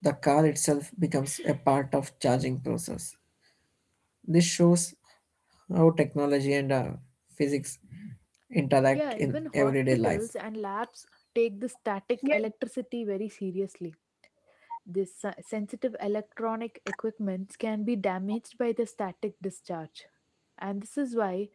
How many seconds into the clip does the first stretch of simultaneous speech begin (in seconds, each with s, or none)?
8.9 s